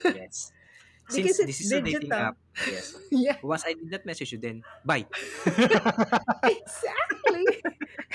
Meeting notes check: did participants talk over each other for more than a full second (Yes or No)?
Yes